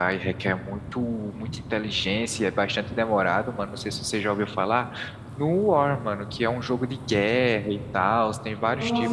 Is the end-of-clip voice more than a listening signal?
Yes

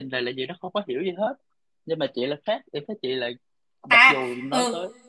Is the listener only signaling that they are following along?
No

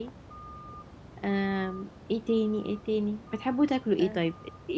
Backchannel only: Yes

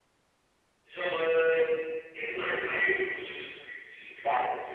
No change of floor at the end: No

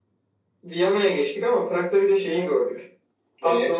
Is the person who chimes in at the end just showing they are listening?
Yes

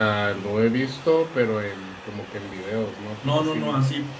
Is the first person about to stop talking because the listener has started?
Yes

